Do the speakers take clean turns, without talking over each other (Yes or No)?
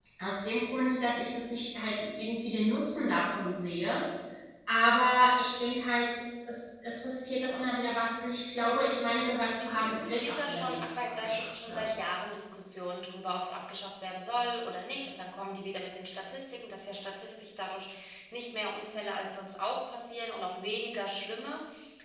No